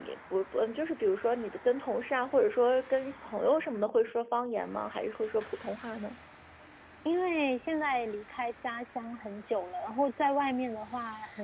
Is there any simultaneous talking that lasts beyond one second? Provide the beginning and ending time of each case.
none

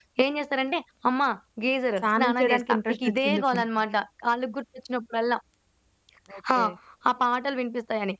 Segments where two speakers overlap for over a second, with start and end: 2.0-3.6

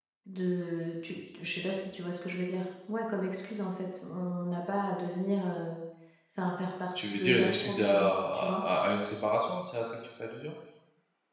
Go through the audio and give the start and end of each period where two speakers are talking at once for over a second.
7.0-8.6

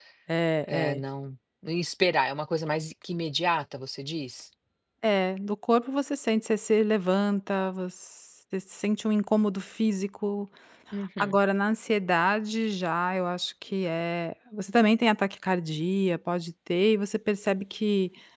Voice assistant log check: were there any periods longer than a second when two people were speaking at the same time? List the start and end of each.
none

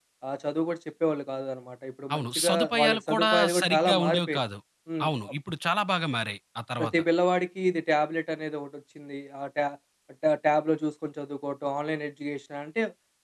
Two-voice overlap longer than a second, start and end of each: 2.1-4.4

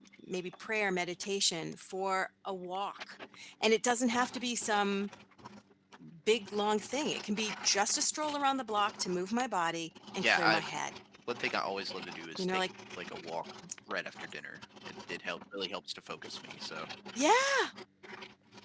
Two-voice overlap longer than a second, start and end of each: none

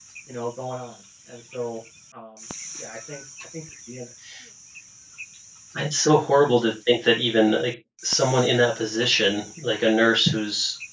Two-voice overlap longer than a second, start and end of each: none

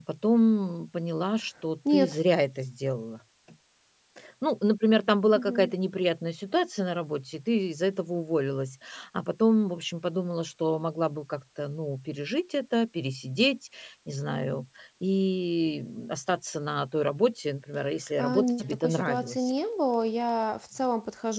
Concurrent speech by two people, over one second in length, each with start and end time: 18.2-19.5

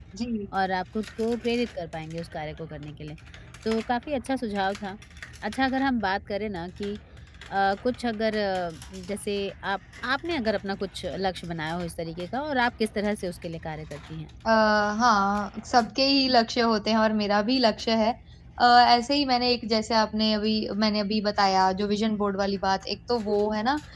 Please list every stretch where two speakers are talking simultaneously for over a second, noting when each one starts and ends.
none

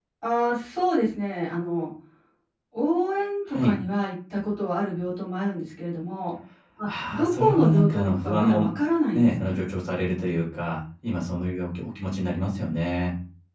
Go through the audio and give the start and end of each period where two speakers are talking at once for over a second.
6.9-8.7

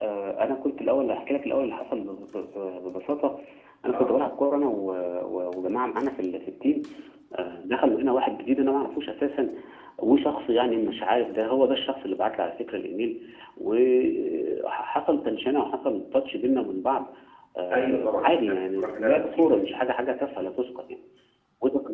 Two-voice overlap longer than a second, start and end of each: 17.7-19.7

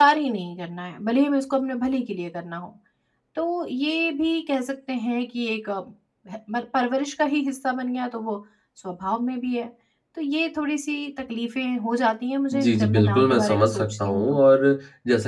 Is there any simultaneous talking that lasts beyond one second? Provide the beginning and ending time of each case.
12.5-14.2

